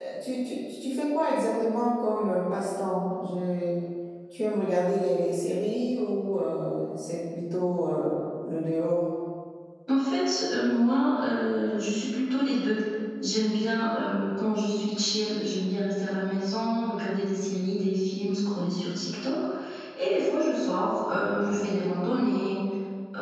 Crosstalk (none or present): none